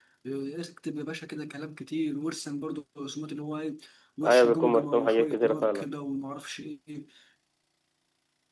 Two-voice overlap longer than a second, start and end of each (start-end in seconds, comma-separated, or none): 4.2-5.9